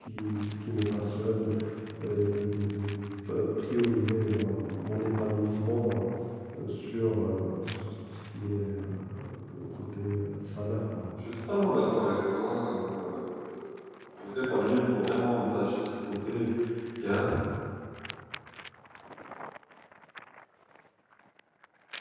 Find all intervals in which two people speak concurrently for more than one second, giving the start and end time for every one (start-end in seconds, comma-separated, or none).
none